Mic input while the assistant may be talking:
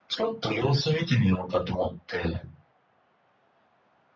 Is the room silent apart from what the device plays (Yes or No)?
Yes